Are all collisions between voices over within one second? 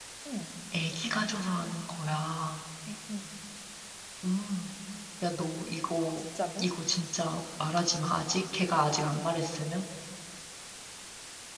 Yes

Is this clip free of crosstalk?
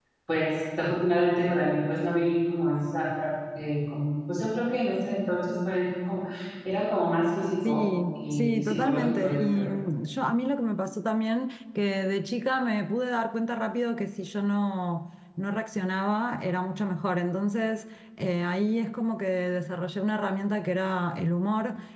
No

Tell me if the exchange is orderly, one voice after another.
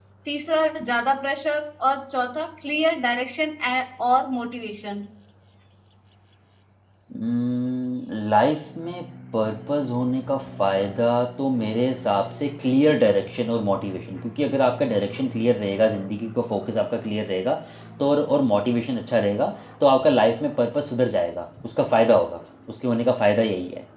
Yes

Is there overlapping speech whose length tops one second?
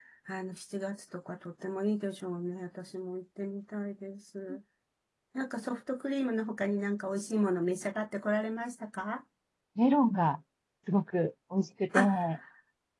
No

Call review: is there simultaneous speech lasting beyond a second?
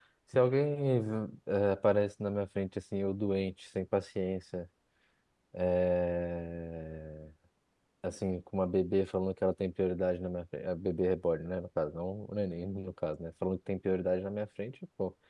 No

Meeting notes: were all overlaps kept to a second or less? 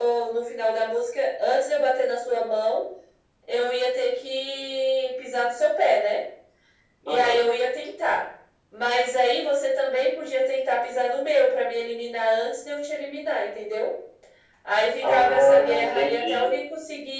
No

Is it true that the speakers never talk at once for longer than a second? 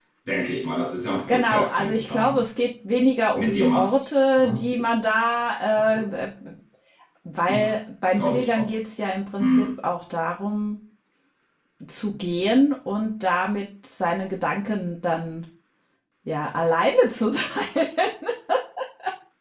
No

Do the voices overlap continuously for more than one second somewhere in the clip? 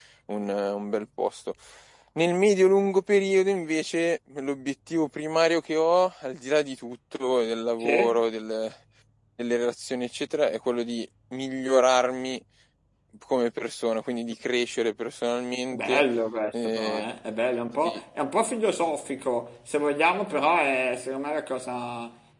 No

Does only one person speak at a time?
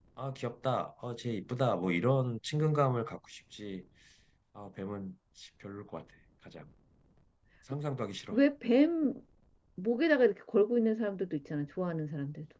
Yes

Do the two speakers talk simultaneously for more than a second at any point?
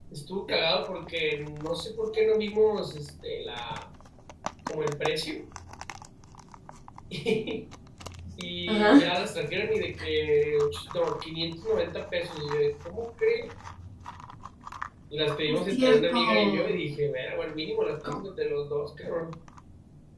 Yes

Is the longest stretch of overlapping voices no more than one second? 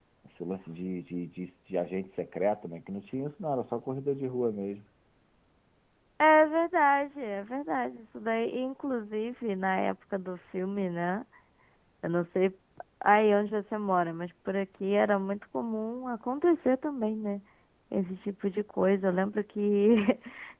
Yes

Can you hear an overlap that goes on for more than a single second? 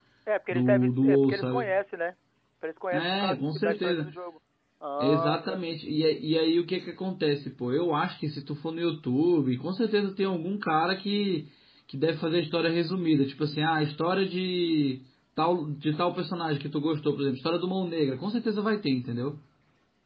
Yes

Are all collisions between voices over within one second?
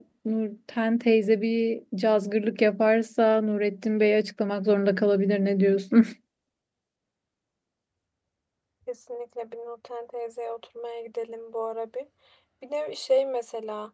Yes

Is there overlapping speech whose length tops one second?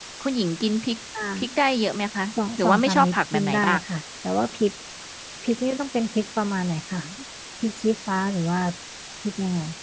Yes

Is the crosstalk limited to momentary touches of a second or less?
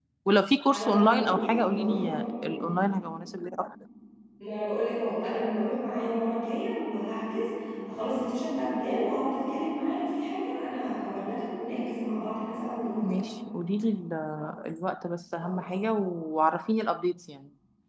No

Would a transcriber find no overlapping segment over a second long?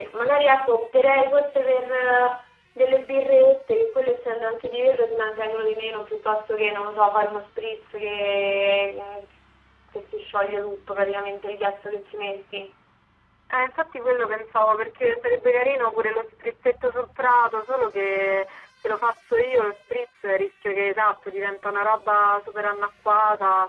Yes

